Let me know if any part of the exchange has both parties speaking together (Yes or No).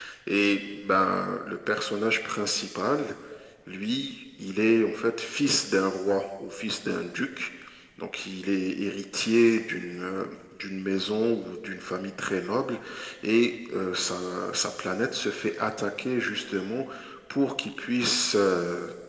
No